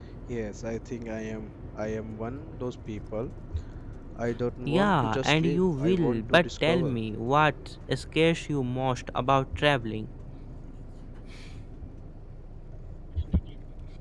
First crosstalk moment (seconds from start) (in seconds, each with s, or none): 4.7 s